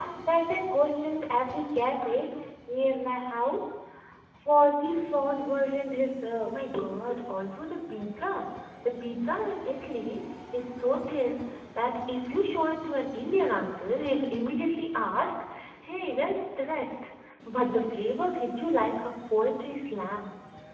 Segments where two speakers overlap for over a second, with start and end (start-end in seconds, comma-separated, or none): none